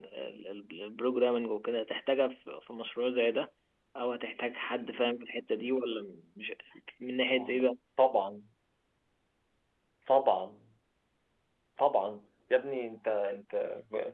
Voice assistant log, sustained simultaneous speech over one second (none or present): none